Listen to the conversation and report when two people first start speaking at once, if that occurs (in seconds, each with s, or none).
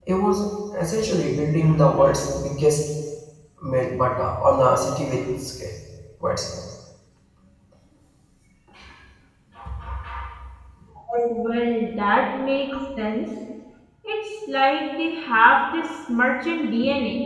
none